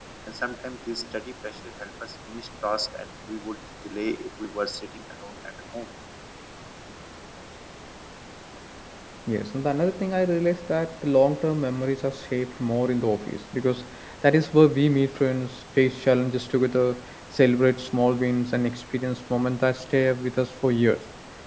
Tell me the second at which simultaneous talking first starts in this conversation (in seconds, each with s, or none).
none